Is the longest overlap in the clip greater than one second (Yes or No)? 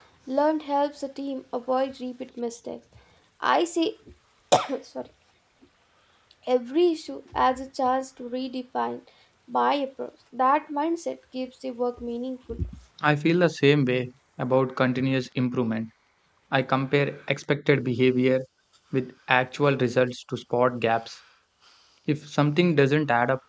No